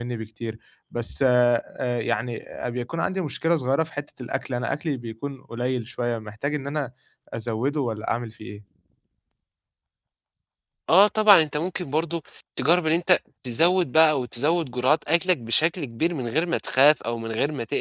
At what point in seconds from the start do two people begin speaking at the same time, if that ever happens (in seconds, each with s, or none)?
none